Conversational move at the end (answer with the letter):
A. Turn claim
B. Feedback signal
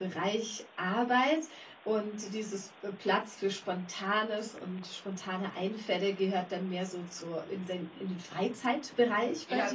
A